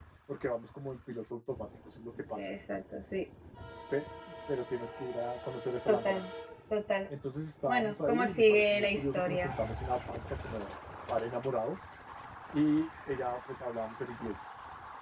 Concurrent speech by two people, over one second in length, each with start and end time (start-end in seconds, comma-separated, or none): 7.7-9.5